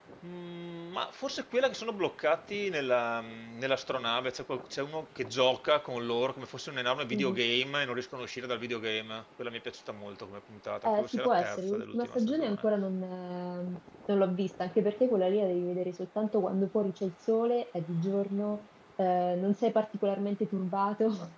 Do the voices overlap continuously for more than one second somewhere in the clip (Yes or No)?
Yes